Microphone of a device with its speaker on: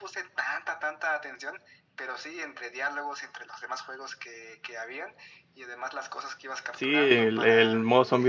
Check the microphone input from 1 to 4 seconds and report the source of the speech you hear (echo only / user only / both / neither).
echo only